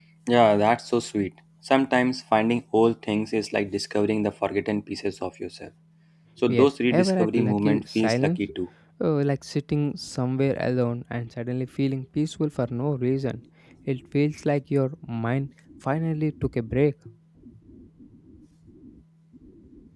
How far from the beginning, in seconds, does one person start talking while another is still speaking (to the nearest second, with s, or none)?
7 s